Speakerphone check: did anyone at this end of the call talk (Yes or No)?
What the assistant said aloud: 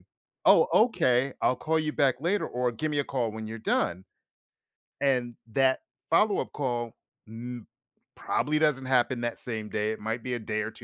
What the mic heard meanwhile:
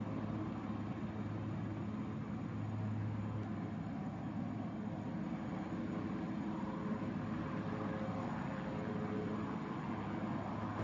No